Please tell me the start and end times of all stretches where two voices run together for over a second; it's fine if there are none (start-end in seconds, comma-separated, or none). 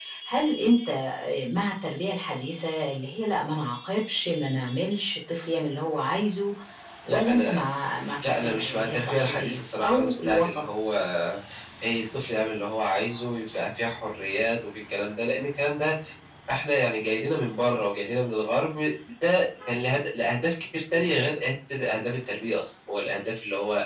8.2-10.6